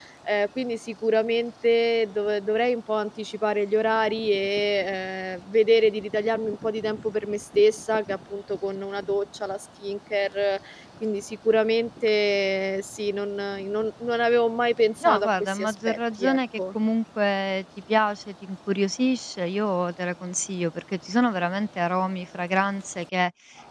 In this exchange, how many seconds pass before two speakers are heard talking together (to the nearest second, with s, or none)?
15 s